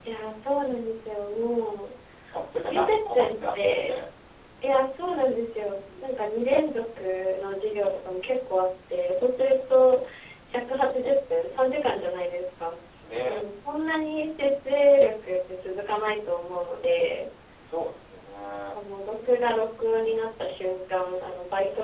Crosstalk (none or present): present